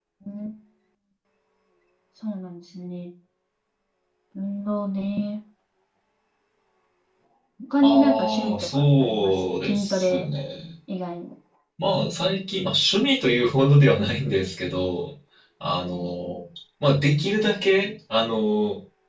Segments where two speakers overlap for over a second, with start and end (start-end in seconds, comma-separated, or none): 7.8-10.2